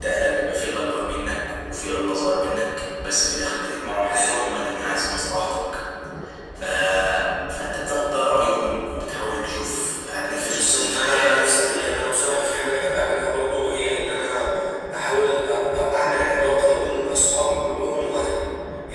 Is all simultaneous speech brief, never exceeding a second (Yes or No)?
No